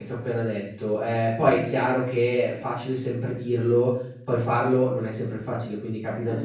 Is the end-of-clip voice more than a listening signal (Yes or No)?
No